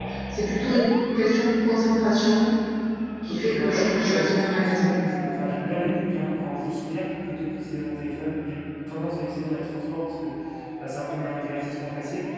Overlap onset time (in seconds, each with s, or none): 3.3 s